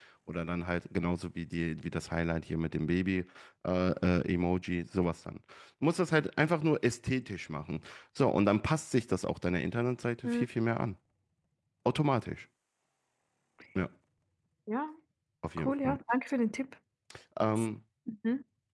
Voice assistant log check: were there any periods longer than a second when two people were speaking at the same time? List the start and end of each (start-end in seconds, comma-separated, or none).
none